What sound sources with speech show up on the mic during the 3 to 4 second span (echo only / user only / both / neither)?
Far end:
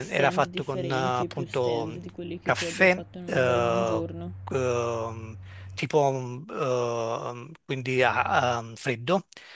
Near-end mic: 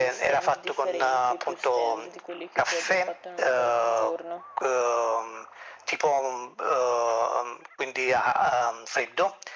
echo only